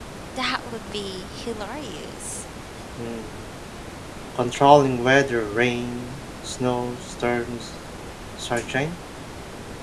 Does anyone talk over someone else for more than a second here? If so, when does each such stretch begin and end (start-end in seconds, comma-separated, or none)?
none